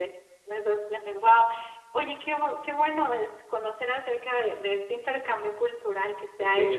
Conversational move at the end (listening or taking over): taking over